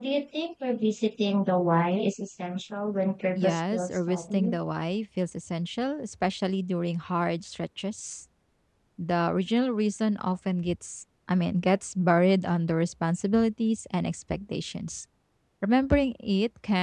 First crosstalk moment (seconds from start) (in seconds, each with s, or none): 3.4 s